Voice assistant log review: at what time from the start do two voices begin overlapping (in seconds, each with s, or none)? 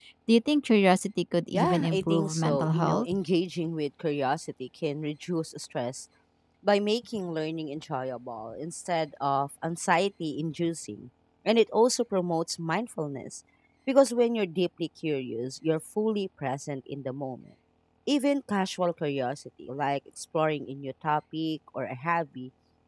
1.5 s